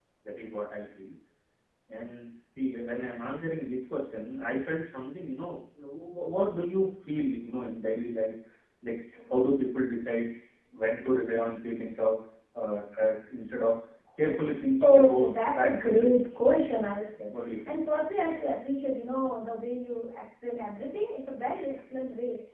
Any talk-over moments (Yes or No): Yes